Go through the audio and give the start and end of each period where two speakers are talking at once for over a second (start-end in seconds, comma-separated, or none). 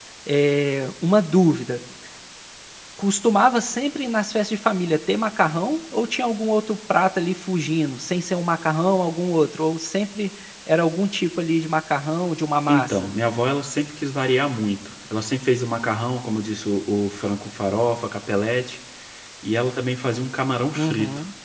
none